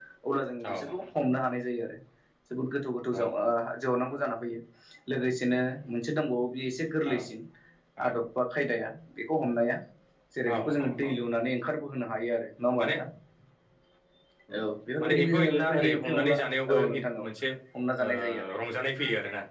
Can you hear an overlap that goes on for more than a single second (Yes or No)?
Yes